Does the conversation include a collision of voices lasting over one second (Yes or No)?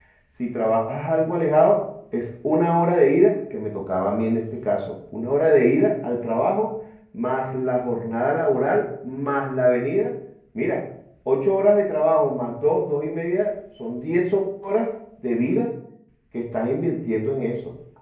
No